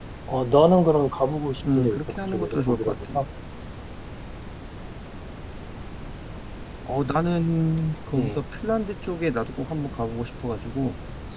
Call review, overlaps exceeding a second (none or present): present